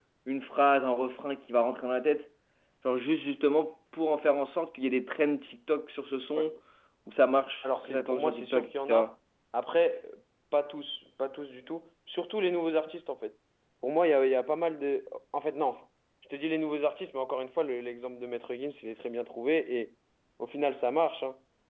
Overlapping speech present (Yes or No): Yes